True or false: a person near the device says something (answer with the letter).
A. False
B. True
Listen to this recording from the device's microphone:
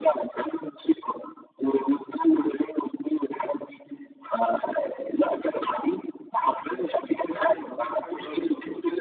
B